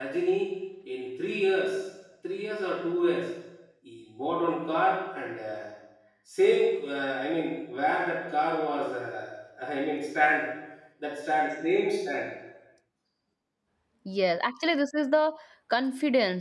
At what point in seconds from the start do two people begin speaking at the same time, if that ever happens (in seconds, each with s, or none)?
none